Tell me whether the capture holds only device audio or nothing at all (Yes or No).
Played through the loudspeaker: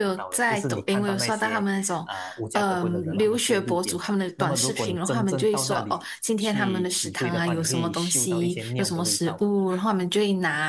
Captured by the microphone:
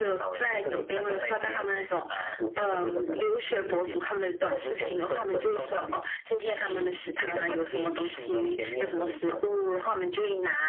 Yes